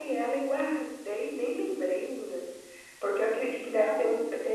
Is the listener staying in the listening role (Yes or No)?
Yes